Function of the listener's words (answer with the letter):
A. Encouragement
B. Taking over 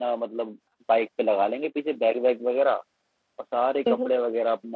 A